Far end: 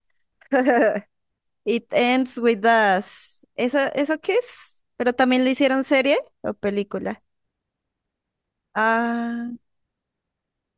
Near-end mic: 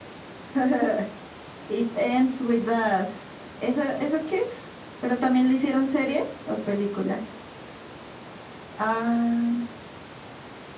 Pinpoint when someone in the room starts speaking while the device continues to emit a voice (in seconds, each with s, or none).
none